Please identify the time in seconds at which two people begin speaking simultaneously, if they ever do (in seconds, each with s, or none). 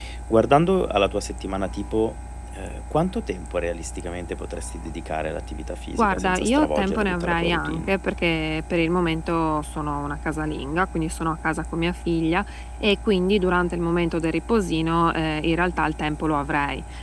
5.9 s